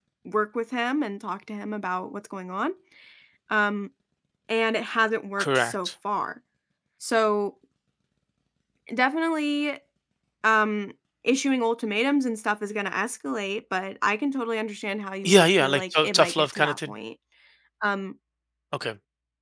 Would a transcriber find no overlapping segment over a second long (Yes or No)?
No